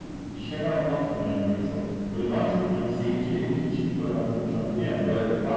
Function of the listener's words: listening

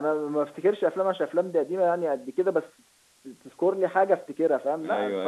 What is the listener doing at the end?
taking over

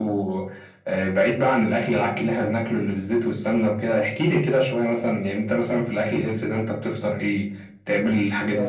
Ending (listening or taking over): taking over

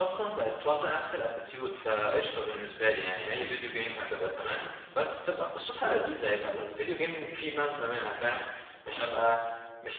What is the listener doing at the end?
listening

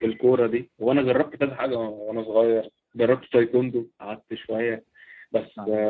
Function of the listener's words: listening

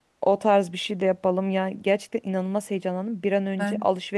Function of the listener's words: listening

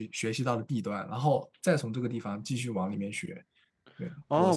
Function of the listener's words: taking over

